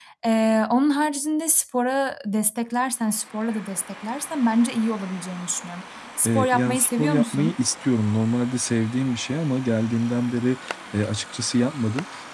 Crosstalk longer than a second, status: present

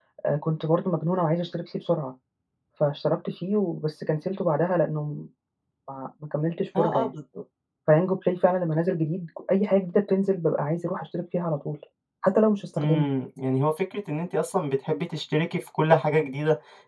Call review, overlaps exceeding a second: none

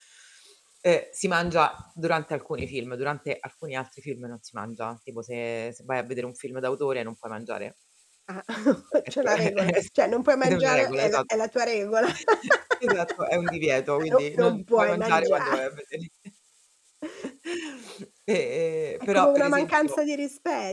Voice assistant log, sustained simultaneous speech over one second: present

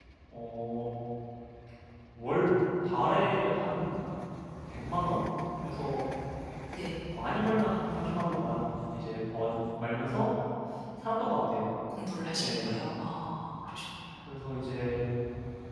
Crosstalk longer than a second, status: none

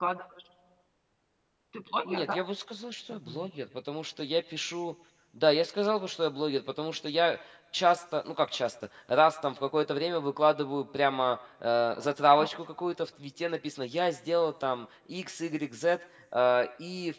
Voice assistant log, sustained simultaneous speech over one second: none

